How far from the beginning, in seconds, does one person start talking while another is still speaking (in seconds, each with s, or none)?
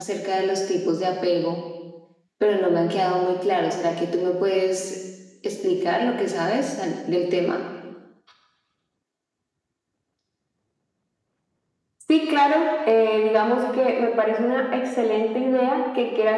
none